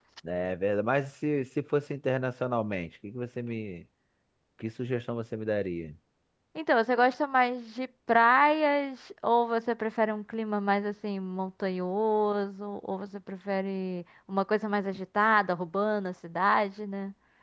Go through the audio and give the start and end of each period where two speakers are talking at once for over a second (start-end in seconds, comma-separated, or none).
none